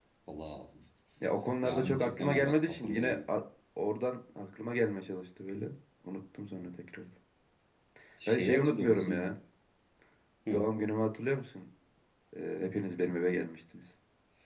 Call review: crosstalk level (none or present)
present